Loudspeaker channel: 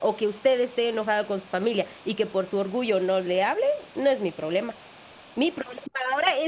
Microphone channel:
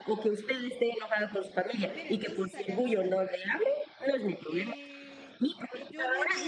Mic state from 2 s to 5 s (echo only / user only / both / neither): both